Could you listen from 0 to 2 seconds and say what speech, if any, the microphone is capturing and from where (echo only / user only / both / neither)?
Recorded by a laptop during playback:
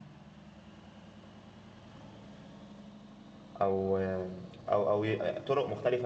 neither